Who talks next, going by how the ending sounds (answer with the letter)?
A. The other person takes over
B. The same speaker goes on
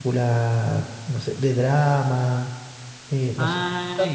B